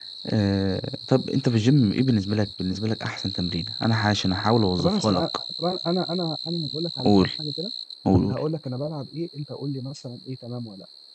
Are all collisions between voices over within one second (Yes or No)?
Yes